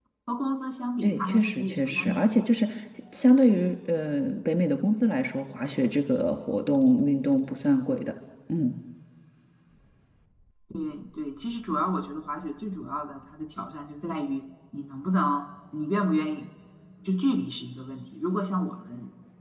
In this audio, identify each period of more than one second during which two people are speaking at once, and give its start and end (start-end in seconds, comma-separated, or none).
1.0-2.3